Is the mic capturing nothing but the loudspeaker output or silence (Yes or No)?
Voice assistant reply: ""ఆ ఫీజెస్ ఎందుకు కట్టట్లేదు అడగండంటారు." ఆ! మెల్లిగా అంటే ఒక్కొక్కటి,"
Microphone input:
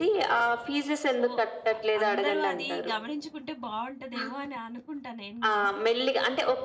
No